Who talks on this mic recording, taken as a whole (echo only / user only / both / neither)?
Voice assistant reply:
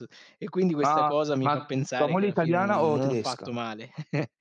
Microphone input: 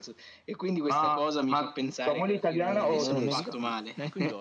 both